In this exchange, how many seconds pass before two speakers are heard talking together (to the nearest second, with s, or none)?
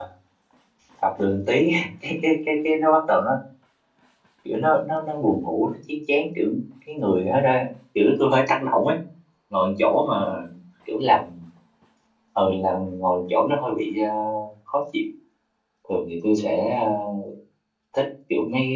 none